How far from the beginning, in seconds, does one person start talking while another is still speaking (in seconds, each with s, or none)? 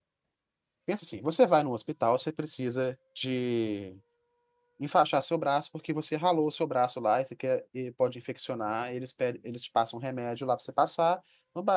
none